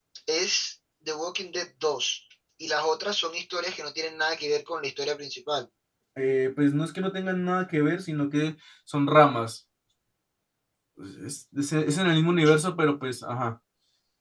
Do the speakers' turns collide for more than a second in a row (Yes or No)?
No